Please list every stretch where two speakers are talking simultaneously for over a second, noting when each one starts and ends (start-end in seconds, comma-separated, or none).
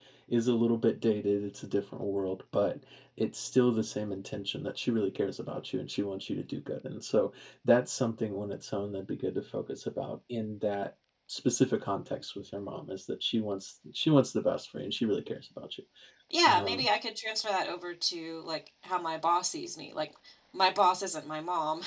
none